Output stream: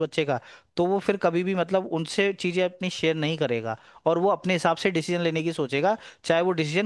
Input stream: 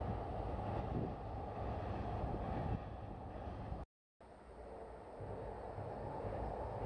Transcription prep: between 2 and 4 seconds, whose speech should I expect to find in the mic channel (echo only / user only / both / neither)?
neither